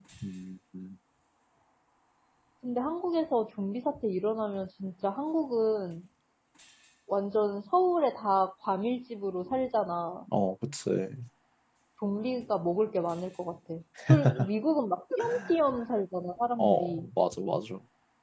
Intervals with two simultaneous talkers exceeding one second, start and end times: none

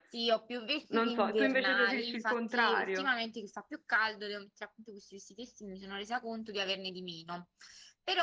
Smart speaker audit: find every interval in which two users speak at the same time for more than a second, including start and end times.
0.9-3.1

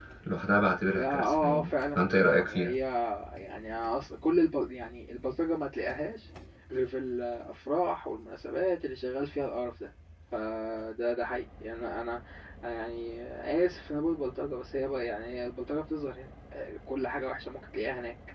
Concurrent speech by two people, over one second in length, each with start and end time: 0.9-2.8

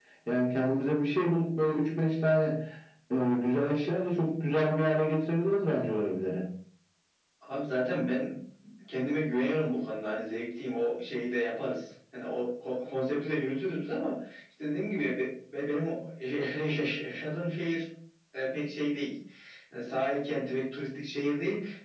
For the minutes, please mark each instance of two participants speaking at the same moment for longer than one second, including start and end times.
none

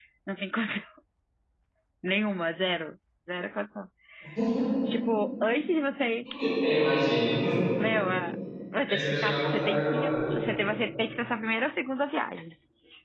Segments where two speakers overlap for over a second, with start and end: 8.9-10.4

